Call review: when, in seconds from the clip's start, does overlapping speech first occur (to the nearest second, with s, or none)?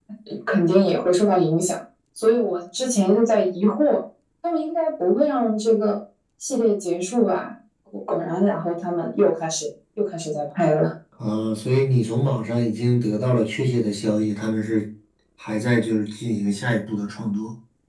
none